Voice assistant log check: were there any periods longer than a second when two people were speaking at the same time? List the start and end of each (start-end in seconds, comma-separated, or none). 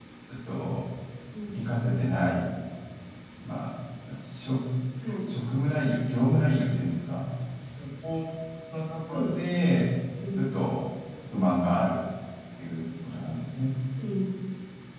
none